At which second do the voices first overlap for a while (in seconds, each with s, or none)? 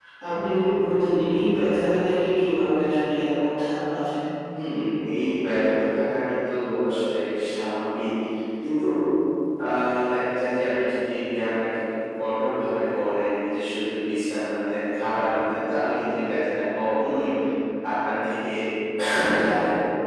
none